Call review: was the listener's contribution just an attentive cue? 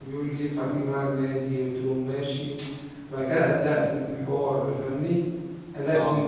Yes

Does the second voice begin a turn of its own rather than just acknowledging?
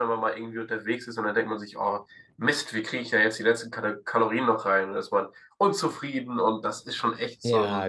Yes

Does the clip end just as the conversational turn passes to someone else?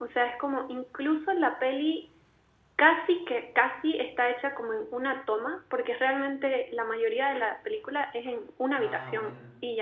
No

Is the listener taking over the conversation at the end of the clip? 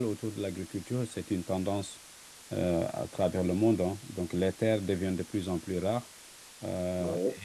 No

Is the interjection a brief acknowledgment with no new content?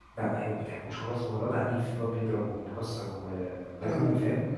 No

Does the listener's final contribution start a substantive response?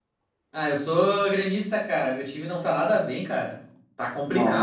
Yes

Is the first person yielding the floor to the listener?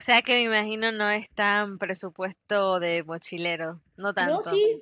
Yes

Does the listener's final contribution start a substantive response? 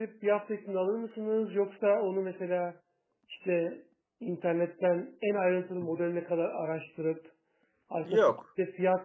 No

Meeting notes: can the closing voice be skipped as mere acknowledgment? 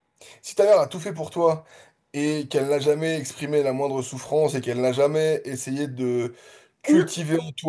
Yes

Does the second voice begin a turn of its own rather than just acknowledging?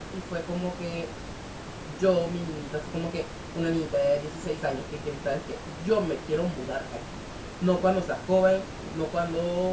No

